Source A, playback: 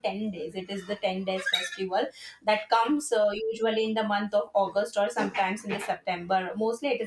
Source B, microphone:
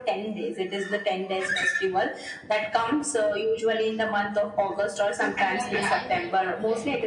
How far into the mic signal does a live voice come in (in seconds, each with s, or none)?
5.4 s